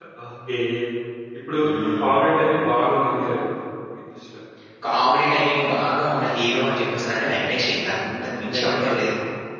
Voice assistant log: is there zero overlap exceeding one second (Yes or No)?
Yes